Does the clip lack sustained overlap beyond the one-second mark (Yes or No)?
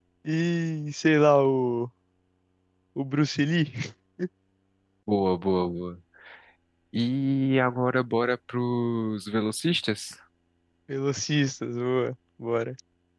Yes